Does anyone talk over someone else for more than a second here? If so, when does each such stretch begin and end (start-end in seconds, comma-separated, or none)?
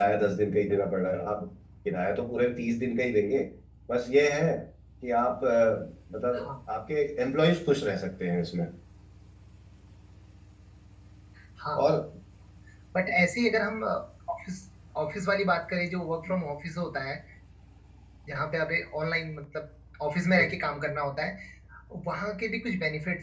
none